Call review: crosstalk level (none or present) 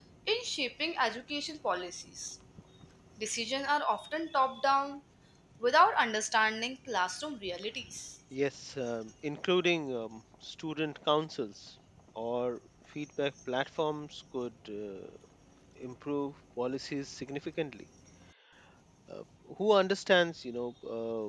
none